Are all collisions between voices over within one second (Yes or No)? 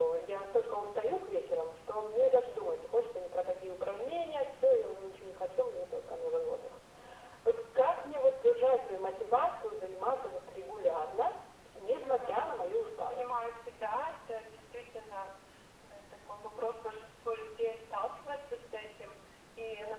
Yes